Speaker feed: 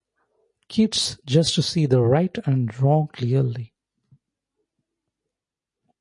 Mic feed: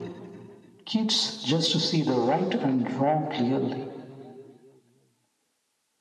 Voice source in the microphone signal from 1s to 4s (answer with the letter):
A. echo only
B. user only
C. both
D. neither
A